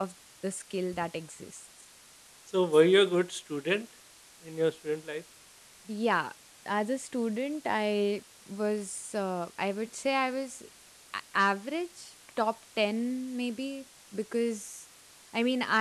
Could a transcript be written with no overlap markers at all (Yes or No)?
Yes